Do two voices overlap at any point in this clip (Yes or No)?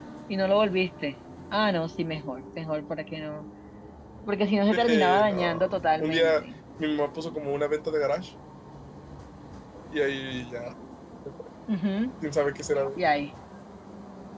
Yes